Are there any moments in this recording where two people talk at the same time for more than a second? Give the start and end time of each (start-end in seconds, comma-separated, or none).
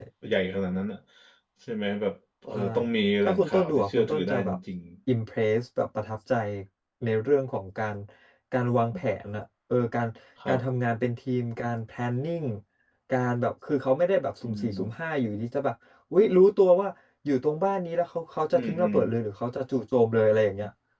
3.2-4.6